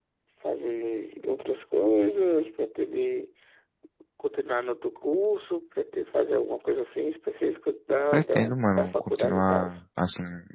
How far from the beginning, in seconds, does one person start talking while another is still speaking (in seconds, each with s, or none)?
8.1 s